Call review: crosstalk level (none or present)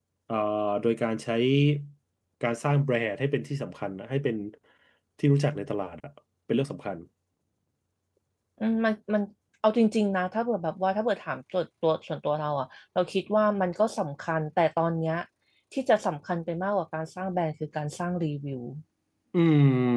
none